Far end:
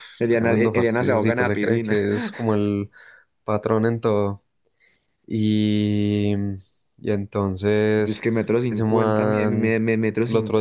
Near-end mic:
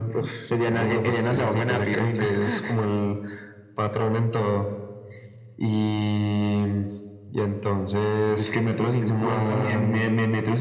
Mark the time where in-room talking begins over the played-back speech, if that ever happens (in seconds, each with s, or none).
none